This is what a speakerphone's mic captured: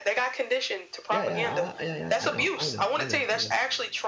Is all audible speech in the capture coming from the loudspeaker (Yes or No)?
No